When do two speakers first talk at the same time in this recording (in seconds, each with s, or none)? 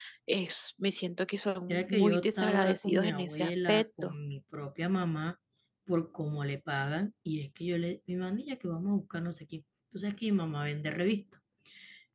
1.7 s